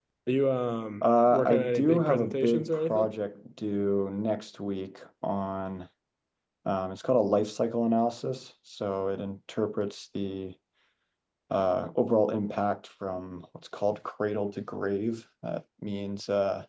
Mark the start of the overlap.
1.0 s

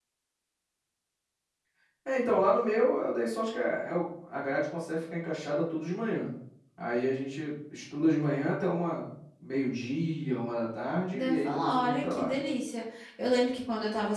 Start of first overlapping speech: 11.1 s

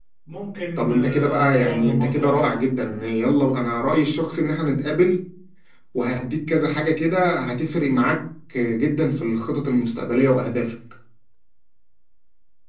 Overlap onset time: 0.8 s

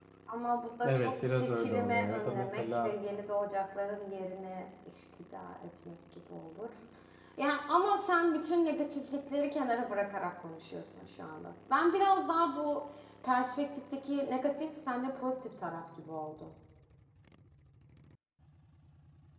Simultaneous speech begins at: 0.8 s

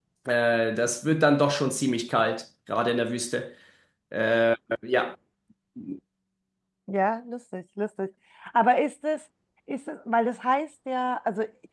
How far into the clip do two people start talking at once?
none

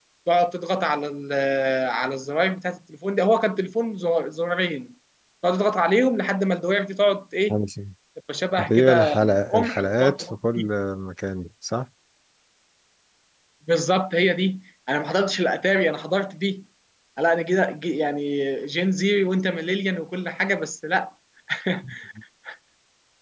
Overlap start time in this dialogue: 8.6 s

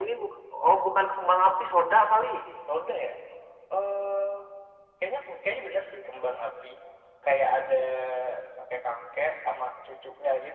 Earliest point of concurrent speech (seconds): none

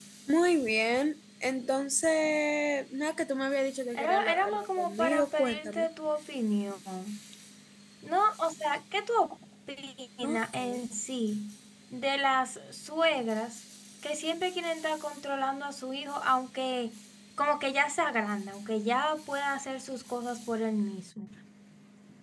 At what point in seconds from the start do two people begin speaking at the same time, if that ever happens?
4.0 s

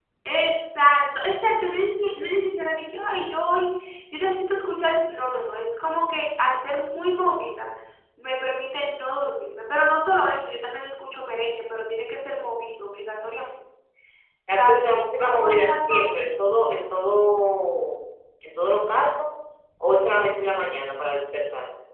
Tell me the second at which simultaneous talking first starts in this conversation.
14.5 s

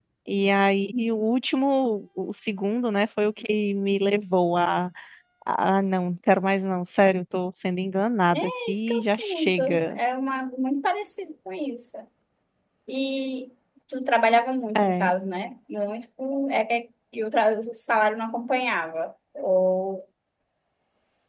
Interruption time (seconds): 8.3 s

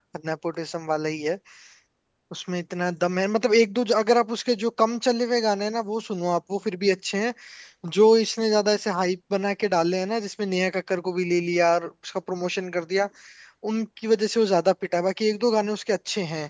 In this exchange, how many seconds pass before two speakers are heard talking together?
none

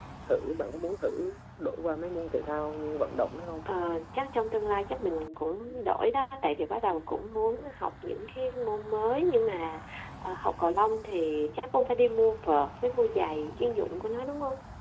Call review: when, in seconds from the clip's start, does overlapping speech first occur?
none

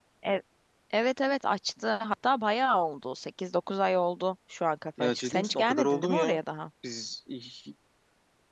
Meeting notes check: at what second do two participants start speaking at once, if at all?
5.0 s

